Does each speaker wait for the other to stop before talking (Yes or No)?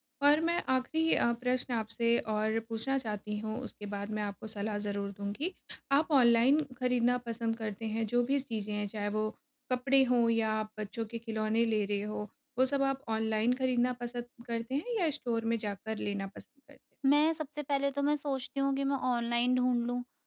Yes